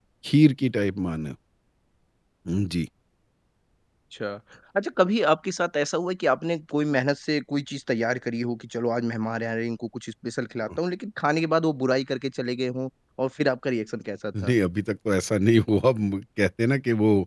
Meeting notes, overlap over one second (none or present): none